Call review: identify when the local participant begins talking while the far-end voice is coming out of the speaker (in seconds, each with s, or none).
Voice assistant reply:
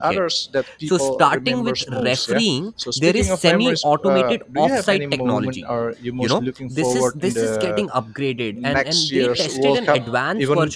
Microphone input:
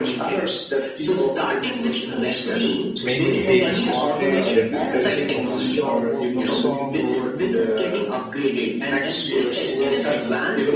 3.0 s